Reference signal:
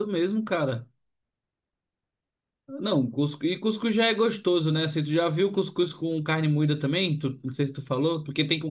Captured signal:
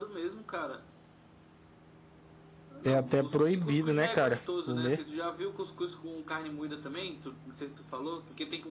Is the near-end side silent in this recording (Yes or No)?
No